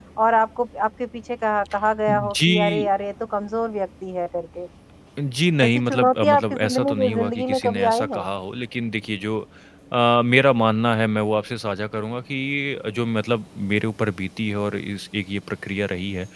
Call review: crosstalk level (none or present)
present